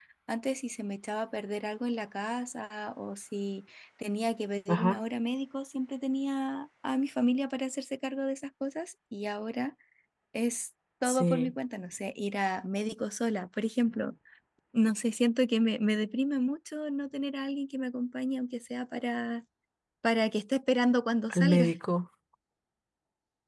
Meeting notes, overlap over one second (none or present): none